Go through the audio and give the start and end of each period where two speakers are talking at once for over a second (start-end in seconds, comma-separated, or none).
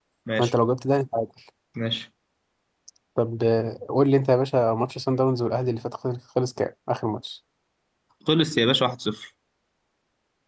none